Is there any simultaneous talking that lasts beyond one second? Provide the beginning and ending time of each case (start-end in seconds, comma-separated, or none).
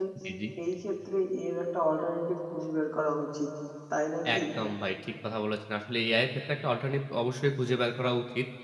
none